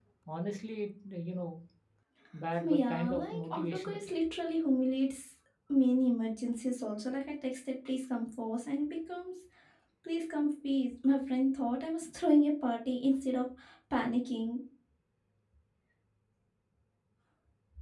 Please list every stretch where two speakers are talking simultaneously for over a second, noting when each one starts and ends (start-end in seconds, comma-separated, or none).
2.6-4.1